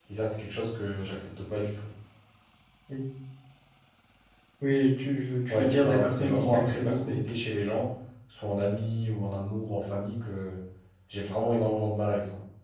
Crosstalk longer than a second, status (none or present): present